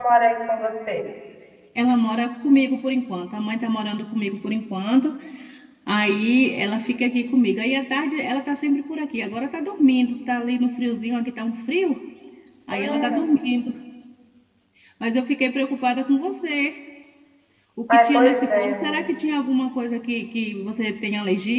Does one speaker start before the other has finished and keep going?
Yes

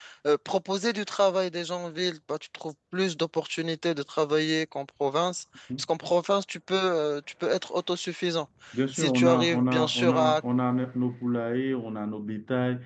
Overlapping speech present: Yes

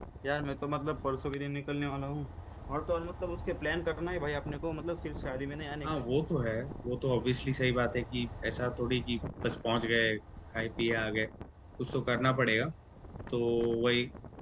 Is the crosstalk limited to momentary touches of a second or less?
Yes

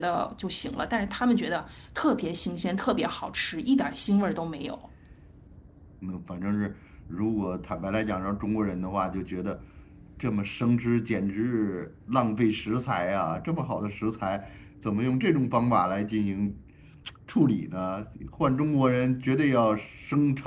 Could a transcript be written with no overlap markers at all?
Yes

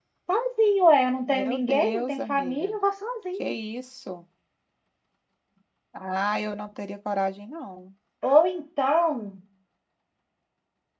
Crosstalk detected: Yes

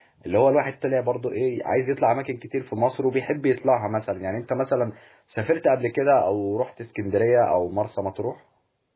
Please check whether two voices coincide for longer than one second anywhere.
No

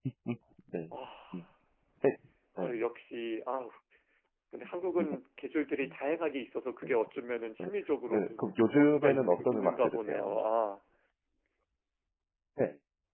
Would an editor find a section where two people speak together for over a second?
Yes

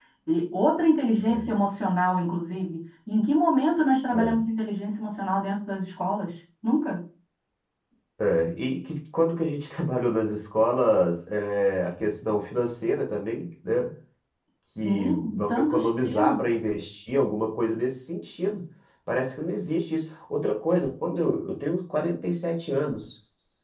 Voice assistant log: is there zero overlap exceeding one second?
No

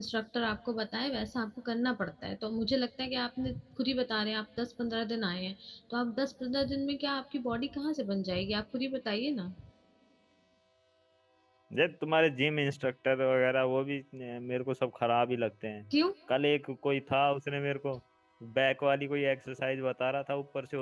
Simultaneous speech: No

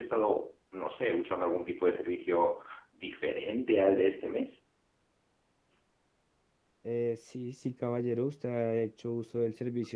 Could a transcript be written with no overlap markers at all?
Yes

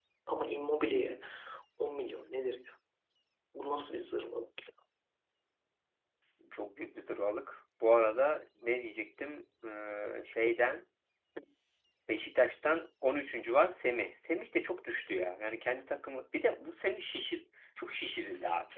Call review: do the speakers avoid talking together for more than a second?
Yes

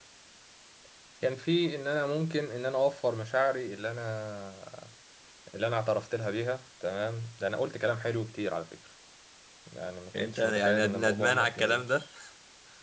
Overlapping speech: Yes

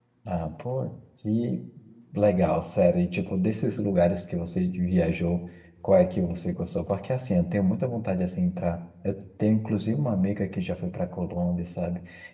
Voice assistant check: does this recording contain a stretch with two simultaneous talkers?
No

